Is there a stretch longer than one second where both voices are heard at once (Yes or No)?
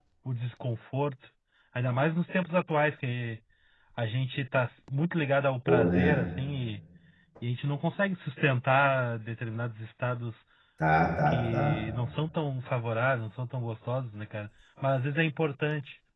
No